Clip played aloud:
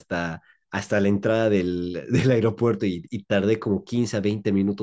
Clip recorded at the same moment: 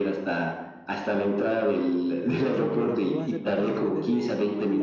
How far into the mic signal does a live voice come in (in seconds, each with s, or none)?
2.2 s